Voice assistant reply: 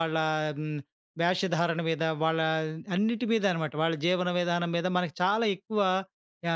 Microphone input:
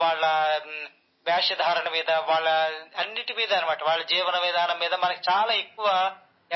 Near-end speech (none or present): none